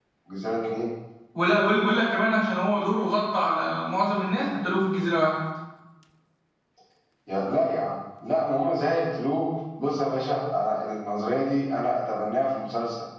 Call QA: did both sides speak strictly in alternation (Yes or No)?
Yes